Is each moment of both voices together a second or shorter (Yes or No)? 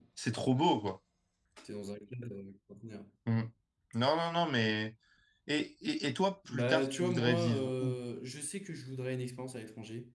No